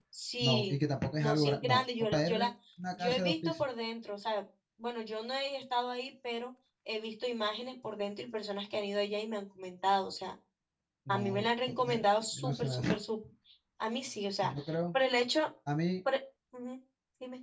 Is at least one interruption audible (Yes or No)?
Yes